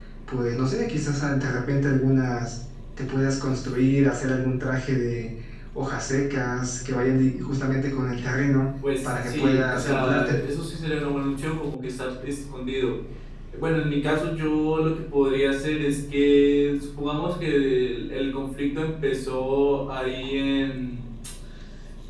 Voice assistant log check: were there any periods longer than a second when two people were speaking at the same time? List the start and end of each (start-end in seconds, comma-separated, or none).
9.0-10.3